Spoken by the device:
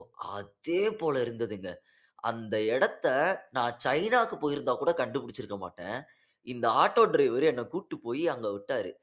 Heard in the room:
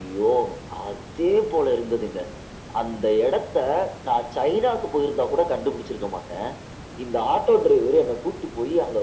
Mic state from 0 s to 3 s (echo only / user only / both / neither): echo only